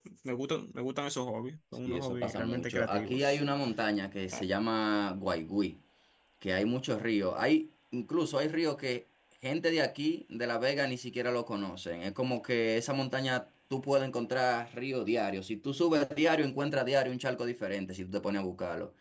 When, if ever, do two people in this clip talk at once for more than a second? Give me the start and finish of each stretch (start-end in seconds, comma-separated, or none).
1.9-3.4